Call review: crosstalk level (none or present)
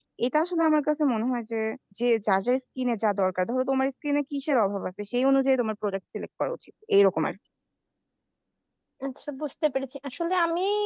none